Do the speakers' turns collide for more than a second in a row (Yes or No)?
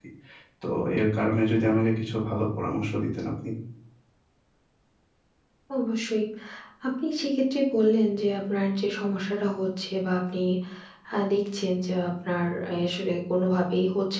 No